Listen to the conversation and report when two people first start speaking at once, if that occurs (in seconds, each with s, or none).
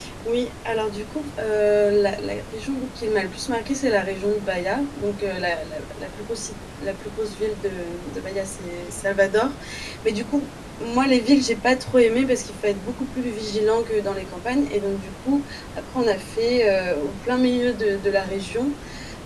none